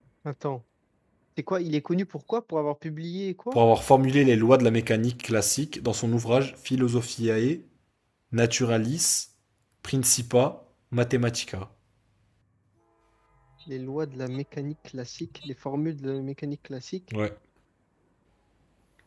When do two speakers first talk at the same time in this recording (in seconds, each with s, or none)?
none